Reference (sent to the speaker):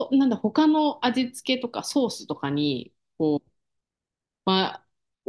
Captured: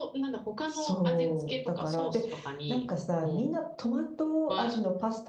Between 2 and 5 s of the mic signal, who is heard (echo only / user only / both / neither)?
both